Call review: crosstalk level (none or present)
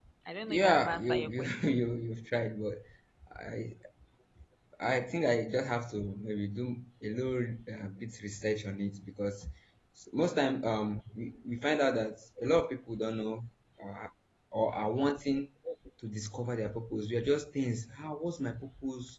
present